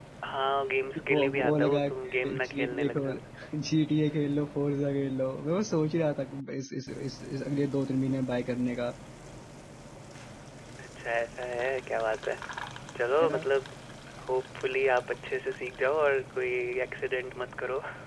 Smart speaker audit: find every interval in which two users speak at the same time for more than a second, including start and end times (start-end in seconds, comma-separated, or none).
1.1-3.2